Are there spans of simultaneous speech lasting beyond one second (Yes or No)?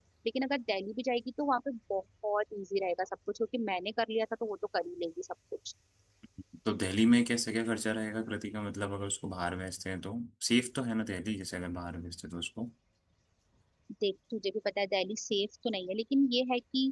No